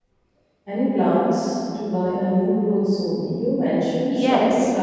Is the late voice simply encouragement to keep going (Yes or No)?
No